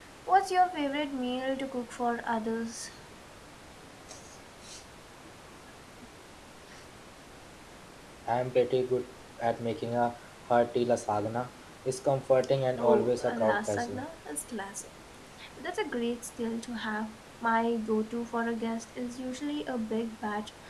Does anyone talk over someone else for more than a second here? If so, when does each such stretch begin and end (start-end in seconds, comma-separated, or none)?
12.8-14.0